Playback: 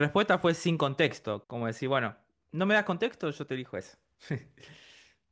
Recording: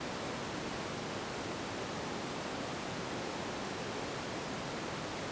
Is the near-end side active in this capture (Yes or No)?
No